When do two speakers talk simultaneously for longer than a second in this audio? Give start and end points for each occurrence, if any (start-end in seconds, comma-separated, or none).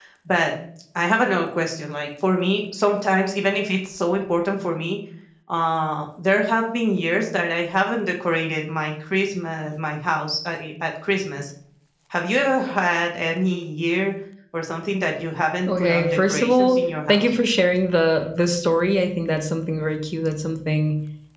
15.7-17.3